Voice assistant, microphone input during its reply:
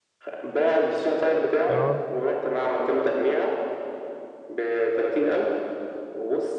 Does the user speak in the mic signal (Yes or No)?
Yes